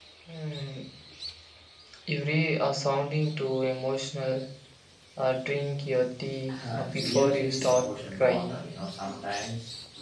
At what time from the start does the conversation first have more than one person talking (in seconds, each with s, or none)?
6.5 s